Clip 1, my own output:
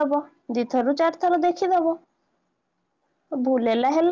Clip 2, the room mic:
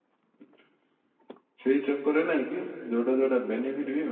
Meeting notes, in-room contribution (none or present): present